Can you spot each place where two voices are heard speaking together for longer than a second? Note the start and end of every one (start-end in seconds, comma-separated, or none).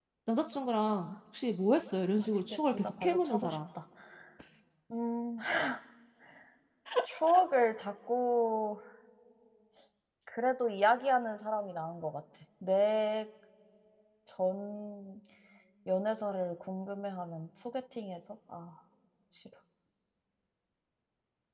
2.2-3.6